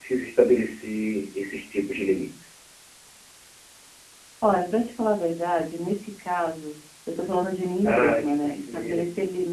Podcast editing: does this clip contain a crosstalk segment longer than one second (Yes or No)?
Yes